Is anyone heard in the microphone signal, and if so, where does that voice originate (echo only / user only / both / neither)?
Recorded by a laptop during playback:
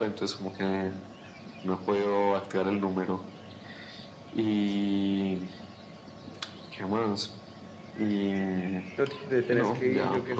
both